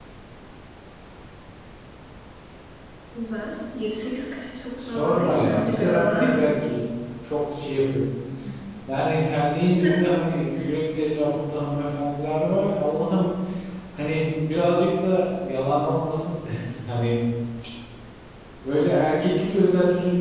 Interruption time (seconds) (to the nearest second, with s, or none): 5 s